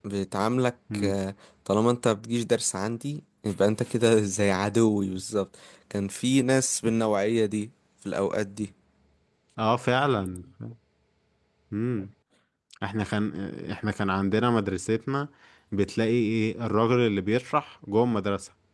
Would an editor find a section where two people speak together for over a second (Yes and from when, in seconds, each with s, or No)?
No